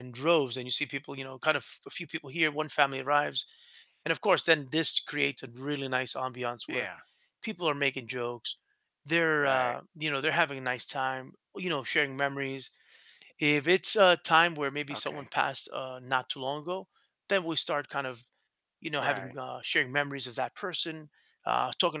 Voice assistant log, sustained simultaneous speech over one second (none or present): none